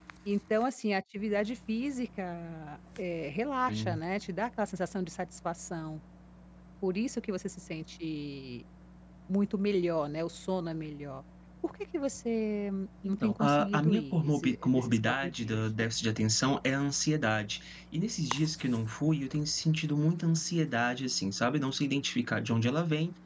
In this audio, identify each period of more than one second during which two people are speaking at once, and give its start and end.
13.1-15.6

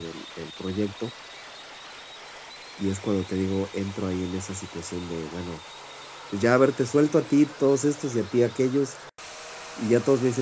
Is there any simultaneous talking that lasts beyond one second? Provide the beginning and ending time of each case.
none

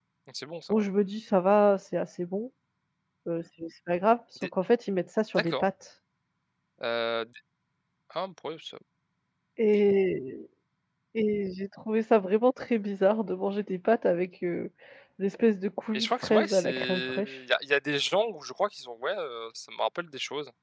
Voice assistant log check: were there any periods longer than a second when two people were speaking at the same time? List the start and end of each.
15.9-17.4

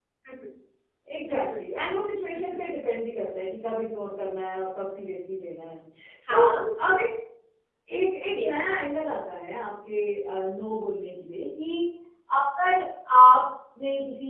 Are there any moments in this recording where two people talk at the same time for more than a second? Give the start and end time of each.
none

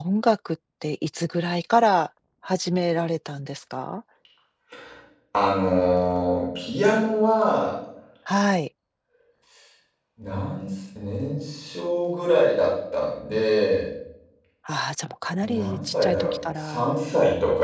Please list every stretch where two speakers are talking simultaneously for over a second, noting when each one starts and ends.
15.4-16.9

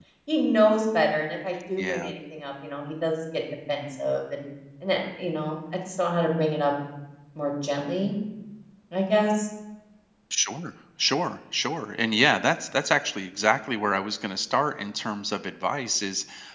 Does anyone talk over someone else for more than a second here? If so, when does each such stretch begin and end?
none

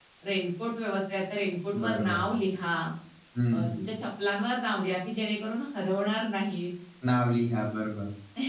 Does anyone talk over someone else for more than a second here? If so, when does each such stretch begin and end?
none

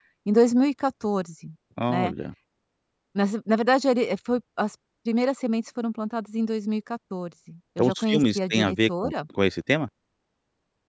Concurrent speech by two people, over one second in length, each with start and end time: 7.8-9.1

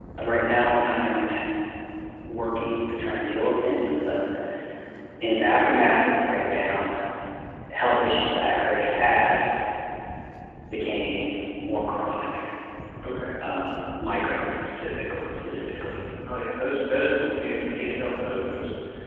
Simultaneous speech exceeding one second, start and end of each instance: none

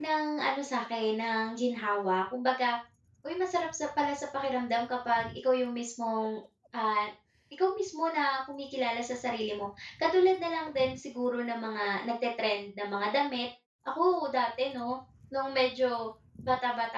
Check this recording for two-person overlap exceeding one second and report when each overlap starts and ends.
none

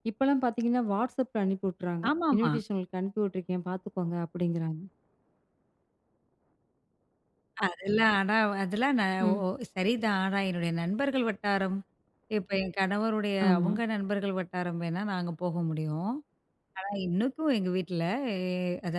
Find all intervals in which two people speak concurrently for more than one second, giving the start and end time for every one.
none

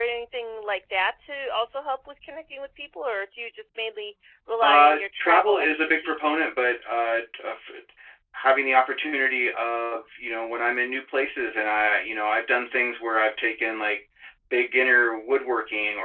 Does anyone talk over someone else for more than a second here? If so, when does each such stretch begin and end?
4.6-6.3

